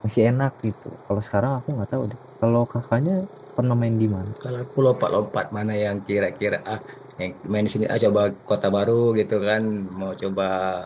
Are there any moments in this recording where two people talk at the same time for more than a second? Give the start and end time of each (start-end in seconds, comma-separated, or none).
none